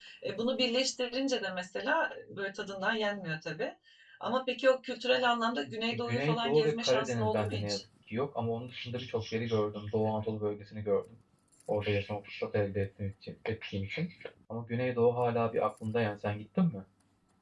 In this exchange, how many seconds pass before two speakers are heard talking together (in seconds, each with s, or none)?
5.9 s